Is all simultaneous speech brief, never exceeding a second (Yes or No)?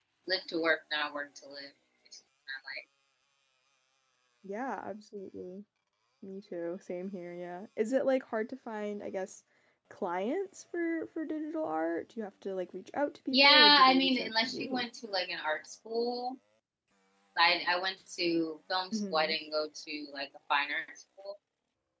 No